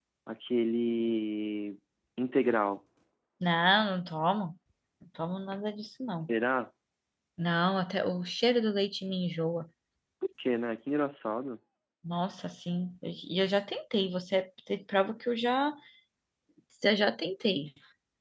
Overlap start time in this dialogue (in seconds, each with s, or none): none